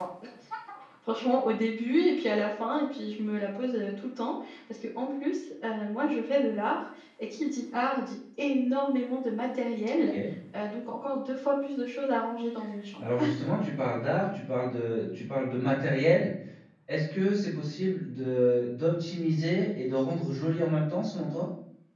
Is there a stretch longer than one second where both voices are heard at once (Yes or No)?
No